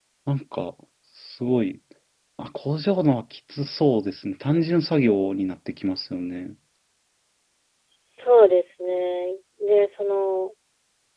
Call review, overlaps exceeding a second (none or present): none